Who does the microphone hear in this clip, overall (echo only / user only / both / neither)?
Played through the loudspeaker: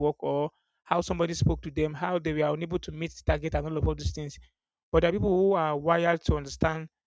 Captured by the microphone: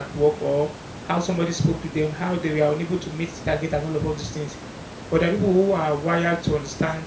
echo only